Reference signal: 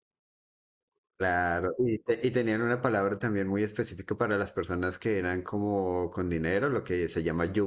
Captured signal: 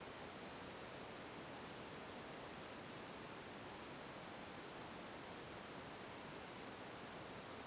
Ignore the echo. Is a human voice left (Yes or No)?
No